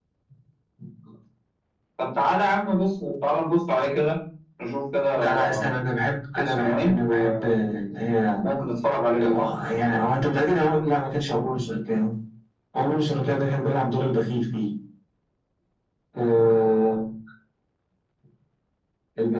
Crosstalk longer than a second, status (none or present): present